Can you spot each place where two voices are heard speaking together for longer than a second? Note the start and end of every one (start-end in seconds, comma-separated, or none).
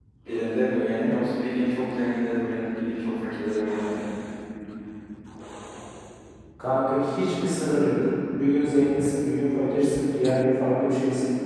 none